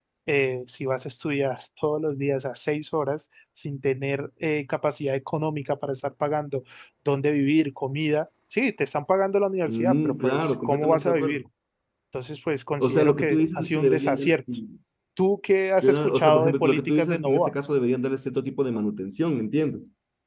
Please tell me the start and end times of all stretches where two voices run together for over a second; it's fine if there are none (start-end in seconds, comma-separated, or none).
9.6-11.4, 12.8-14.3, 15.8-17.5